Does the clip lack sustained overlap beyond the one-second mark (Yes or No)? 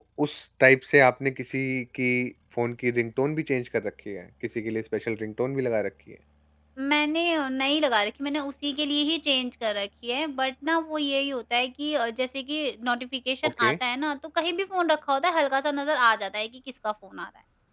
Yes